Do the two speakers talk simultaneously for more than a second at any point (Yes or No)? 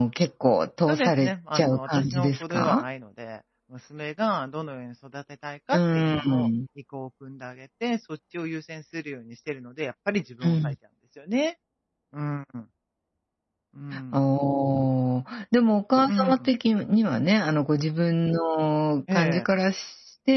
Yes